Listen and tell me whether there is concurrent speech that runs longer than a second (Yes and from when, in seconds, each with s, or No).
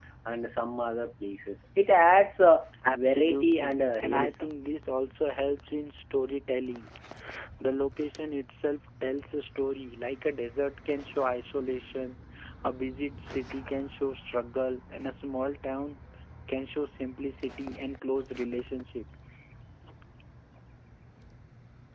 Yes, from 2.8 s